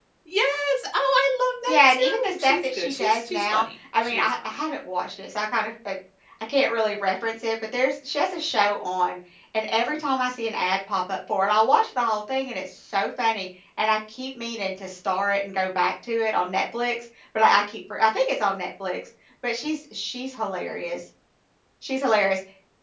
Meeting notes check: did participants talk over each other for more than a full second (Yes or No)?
Yes